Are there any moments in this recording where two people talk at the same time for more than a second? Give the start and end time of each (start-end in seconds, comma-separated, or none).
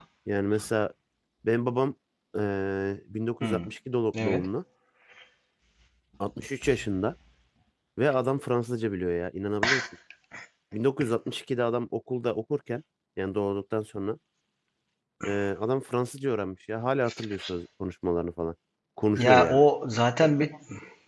none